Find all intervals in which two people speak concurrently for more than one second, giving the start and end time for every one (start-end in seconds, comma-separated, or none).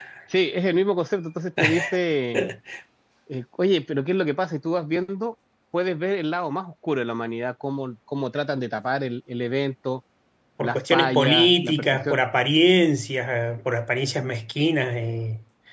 10.6-12.2